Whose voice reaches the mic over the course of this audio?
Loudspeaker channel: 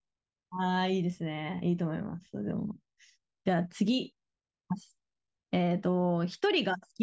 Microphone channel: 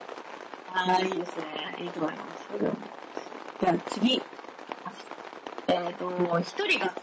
echo only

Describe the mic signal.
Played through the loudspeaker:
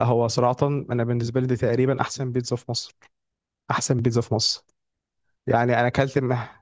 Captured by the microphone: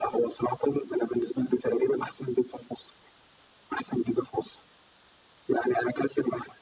echo only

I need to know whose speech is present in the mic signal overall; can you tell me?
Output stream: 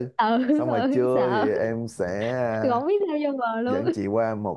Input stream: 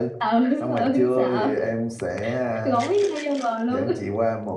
echo only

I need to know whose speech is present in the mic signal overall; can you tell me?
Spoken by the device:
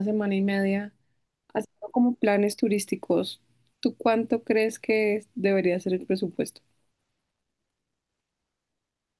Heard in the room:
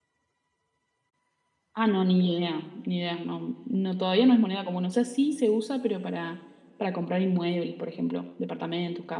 user only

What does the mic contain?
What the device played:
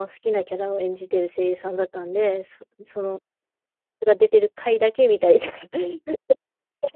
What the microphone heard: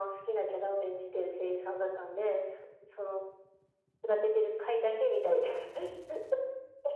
echo only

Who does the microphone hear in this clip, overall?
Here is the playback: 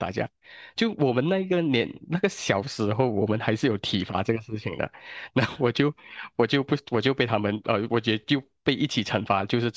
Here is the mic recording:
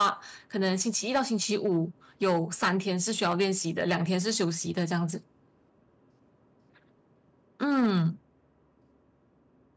user only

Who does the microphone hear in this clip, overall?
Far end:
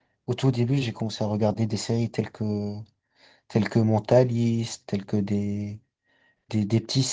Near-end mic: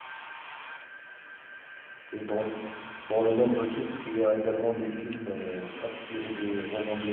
user only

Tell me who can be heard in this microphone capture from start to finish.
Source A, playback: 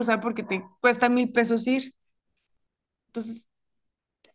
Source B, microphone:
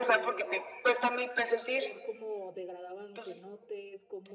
both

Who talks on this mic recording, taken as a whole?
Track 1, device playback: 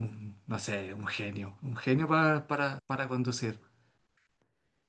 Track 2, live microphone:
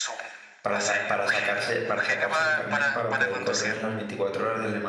both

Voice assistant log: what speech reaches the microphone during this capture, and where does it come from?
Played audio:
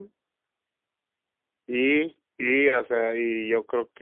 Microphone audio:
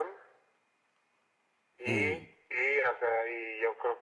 both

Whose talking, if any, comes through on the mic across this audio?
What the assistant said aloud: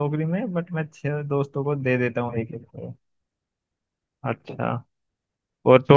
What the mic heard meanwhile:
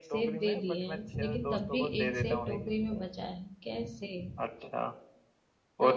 both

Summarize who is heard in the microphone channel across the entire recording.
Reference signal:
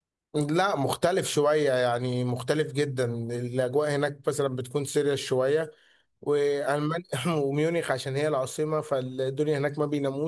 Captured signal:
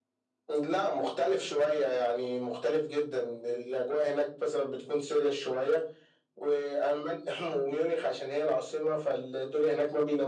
echo only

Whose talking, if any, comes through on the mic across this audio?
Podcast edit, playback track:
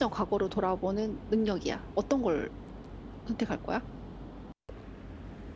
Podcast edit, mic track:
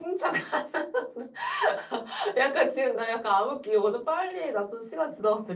user only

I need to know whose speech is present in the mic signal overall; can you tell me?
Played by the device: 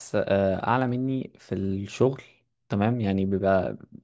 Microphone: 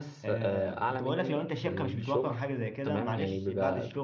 both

